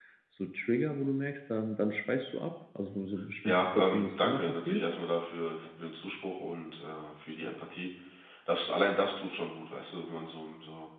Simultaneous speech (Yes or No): Yes